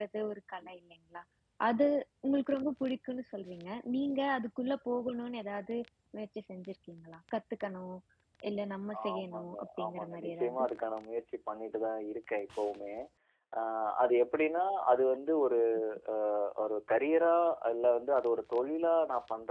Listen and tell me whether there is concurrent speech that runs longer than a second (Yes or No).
Yes